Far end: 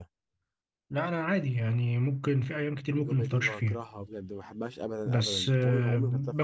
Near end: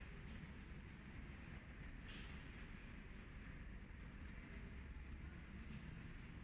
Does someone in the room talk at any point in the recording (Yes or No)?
No